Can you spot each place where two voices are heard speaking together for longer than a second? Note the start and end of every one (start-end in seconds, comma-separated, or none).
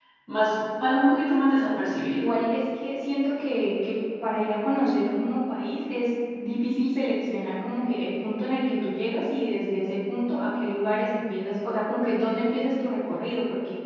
none